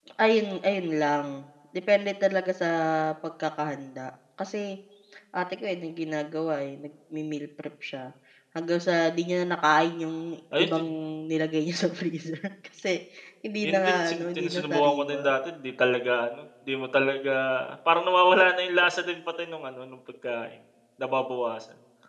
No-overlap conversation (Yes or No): No